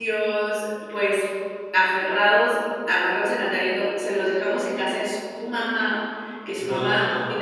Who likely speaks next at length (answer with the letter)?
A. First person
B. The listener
A